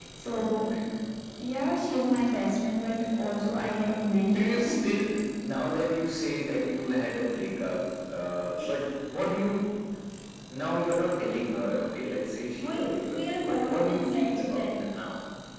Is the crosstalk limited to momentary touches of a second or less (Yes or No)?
No